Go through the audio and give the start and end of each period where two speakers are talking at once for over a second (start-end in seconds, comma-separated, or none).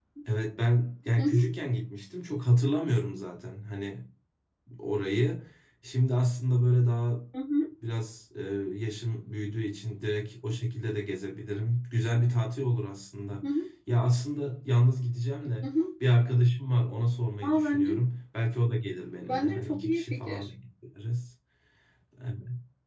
19.2-20.5